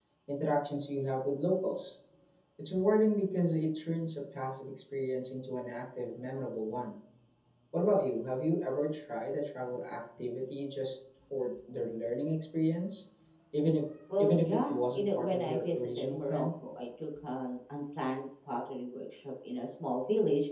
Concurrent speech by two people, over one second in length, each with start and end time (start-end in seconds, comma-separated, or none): 14.2-16.4